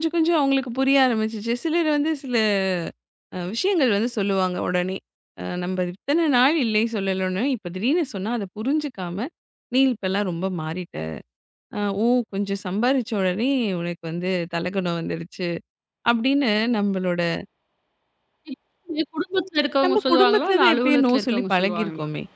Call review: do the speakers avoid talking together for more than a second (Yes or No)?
No